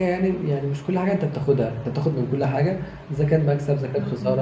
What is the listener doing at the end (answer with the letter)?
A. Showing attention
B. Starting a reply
A